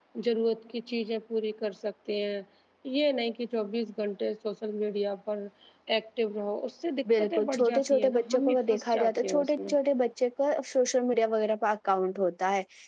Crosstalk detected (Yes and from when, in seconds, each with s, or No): Yes, from 7.0 s